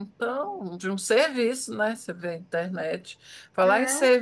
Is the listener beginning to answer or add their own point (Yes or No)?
No